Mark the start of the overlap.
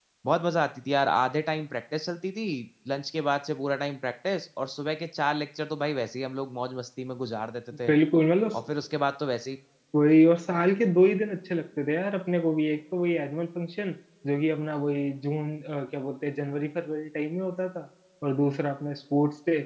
none

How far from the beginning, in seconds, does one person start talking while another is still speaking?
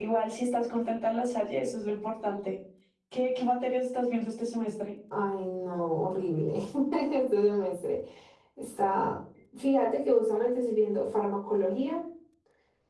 none

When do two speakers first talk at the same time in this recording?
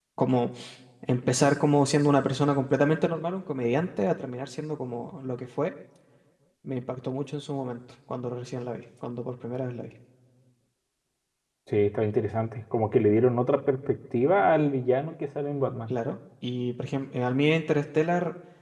none

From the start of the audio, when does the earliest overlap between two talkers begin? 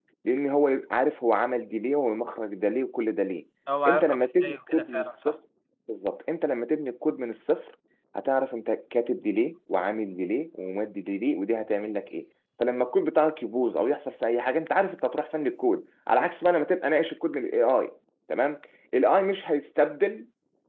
3.9 s

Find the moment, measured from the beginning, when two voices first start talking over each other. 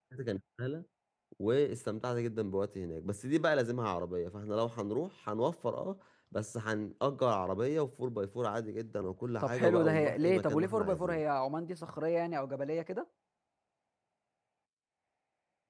9.4 s

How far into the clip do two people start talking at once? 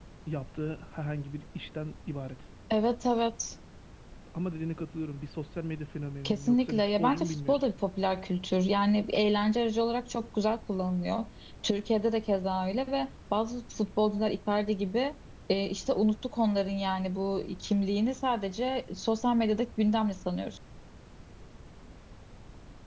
6.2 s

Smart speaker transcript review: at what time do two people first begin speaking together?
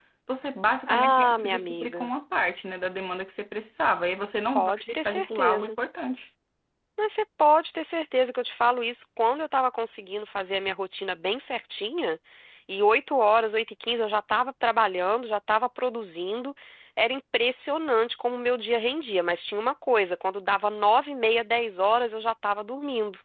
0.9 s

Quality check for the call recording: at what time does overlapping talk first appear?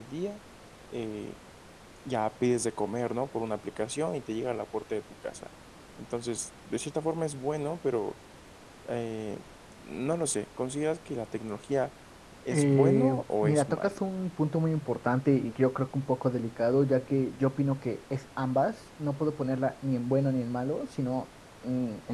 12.5 s

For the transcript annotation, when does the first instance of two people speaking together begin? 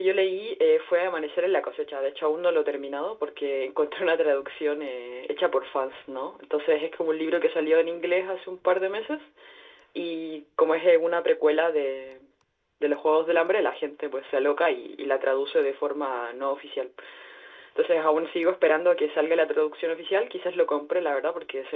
none

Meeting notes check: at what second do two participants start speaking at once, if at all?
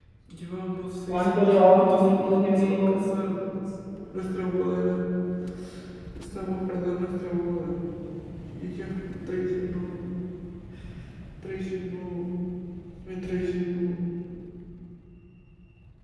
1.1 s

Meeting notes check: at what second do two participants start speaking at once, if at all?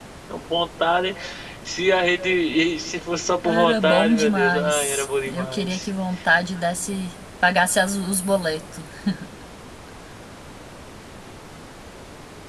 3.4 s

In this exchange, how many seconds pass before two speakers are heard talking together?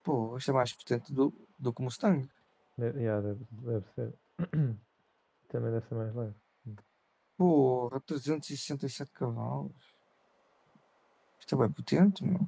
none

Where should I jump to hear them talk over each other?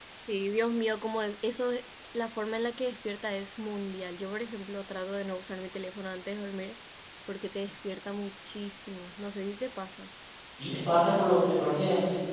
none

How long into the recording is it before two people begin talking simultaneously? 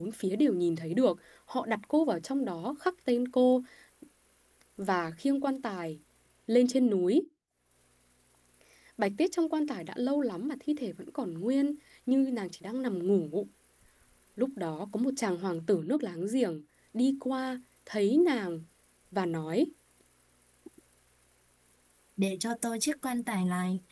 none

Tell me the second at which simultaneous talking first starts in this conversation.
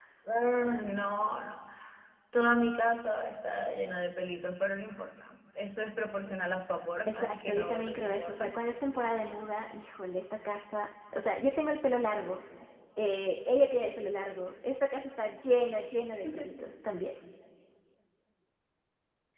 7.1 s

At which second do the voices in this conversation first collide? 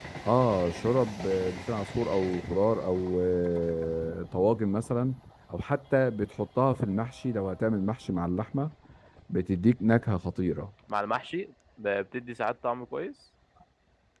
none

